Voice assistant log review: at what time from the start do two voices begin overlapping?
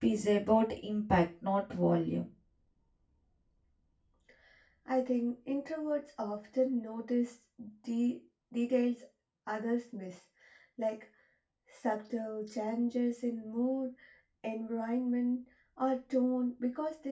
none

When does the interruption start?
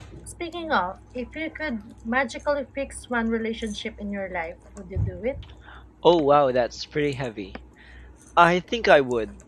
none

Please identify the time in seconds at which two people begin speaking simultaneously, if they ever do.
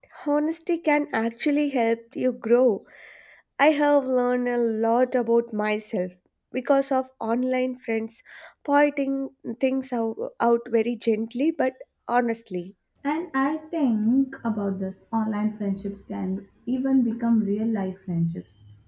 none

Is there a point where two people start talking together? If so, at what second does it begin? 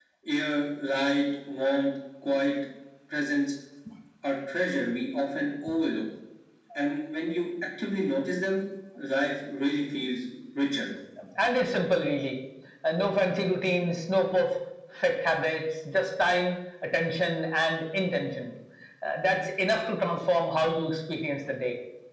none

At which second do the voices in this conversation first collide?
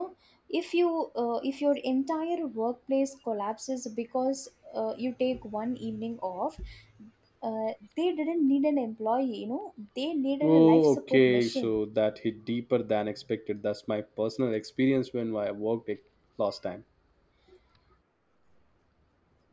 10 s

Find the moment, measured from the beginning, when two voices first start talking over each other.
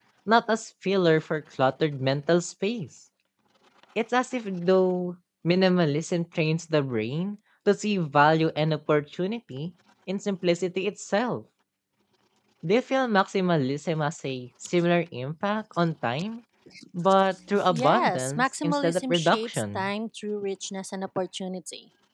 18 s

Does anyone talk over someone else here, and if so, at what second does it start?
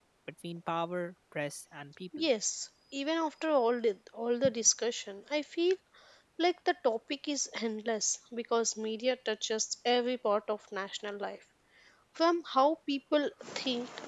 none

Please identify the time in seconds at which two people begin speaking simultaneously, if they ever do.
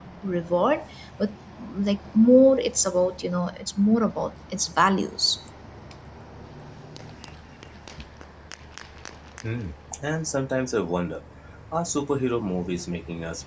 none

